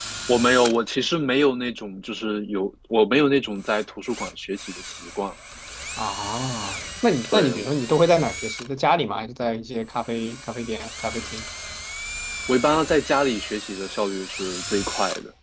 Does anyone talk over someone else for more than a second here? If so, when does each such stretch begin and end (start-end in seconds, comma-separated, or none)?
none